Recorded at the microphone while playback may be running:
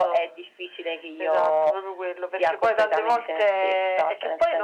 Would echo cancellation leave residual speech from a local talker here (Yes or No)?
No